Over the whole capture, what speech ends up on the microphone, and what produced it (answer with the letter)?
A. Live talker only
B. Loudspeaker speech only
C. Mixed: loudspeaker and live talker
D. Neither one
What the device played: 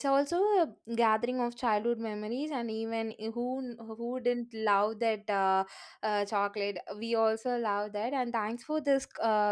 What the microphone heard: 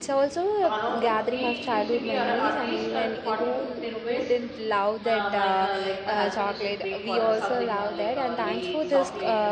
C